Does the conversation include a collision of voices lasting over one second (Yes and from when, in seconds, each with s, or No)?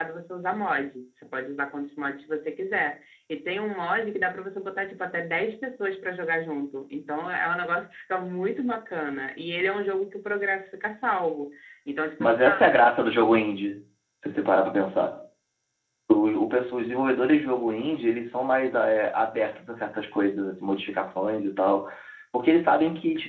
No